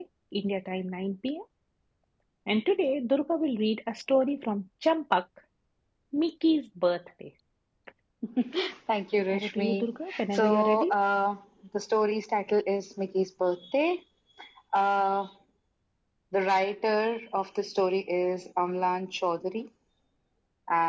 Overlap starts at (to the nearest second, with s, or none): 9 s